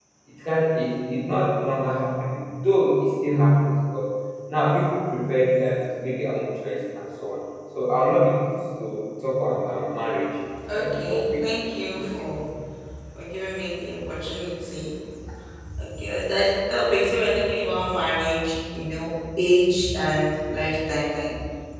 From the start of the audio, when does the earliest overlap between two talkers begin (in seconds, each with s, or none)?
10.6 s